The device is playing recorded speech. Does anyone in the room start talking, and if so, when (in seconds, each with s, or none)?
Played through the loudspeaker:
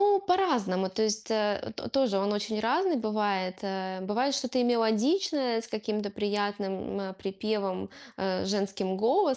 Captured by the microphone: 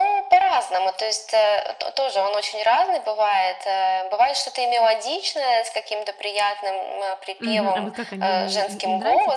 7.4 s